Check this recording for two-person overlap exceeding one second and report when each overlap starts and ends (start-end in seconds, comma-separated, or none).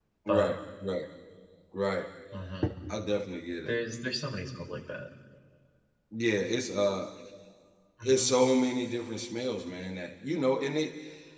none